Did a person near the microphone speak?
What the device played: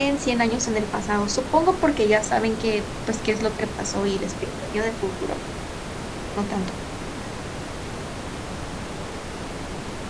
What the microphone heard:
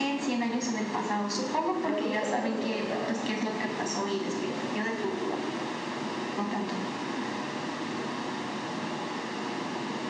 Yes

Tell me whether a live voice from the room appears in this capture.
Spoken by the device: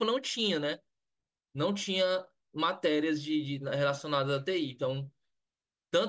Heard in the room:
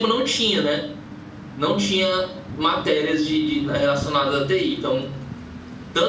No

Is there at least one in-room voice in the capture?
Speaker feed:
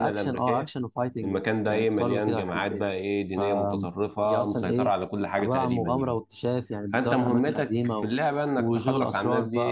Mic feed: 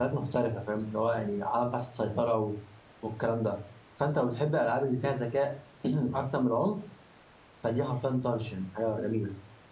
Yes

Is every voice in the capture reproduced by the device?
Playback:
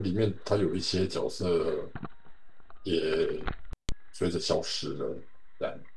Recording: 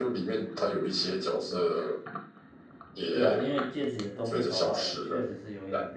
No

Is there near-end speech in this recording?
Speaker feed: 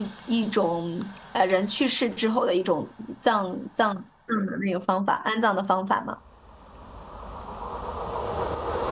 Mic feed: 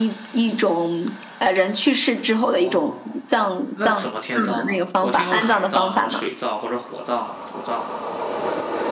Yes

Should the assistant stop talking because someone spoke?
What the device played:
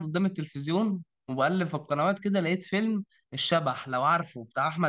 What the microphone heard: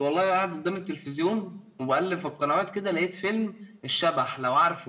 No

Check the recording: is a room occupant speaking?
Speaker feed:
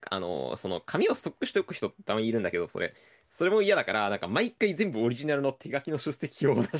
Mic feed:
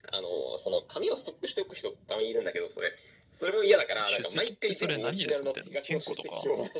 Yes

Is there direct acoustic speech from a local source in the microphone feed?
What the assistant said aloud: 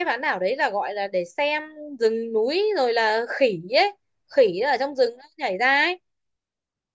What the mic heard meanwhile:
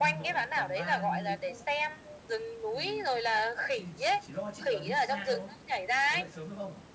Yes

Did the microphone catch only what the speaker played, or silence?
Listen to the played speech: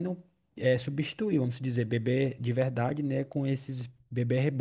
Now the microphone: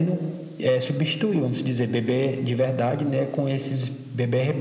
Yes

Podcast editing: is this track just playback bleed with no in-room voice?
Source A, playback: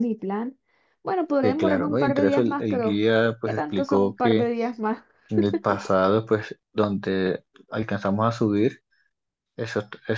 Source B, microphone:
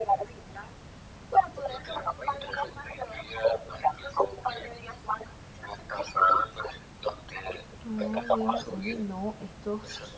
No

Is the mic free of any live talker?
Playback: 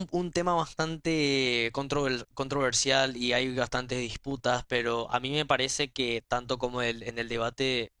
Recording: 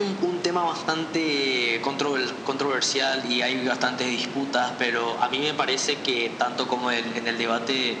Yes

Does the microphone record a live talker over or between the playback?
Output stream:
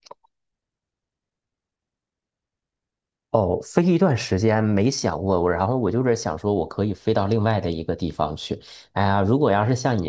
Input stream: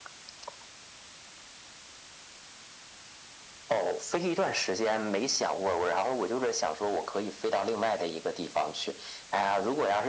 No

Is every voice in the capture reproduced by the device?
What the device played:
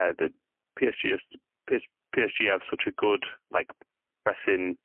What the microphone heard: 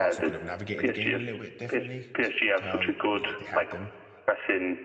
No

